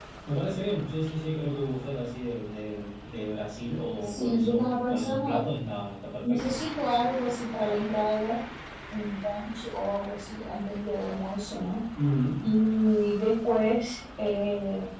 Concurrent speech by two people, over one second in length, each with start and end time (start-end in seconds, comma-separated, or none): 4.0-5.4